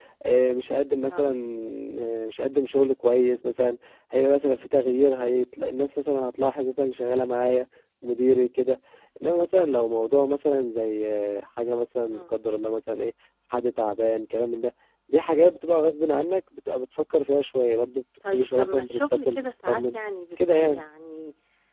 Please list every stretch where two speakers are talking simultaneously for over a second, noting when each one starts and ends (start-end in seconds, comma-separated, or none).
18.3-20.0